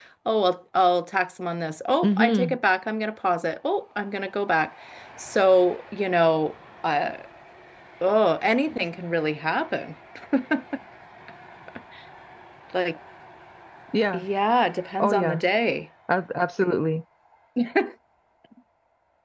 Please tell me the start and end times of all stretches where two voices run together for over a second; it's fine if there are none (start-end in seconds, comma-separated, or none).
none